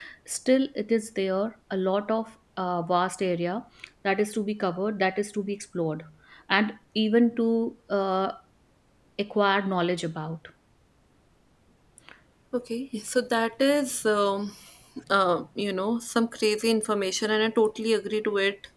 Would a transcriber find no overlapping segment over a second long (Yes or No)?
Yes